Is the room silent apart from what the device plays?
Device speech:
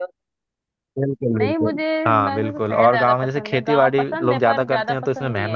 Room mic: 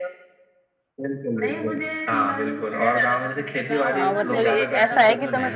No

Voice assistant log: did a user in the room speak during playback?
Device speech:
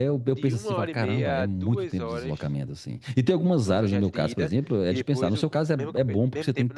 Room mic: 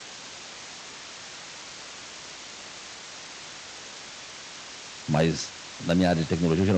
Yes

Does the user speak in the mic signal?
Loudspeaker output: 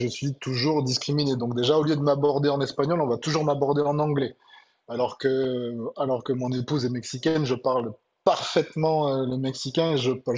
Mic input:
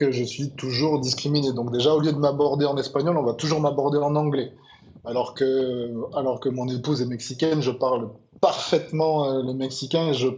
No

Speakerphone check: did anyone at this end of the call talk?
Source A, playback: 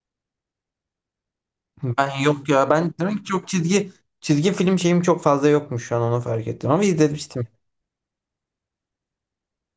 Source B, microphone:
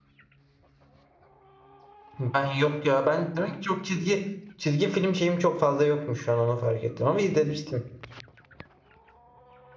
No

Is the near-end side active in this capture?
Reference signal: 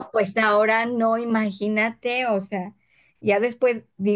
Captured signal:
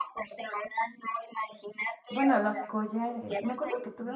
Yes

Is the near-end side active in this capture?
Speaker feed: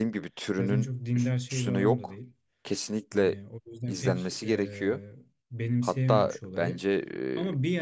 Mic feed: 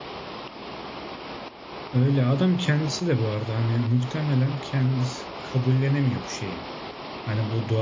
Yes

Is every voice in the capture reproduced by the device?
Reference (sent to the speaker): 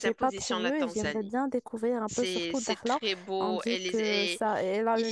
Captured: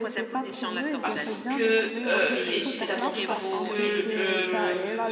No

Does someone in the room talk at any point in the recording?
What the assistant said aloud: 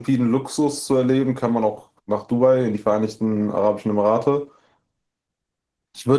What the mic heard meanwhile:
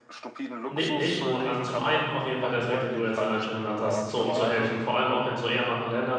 Yes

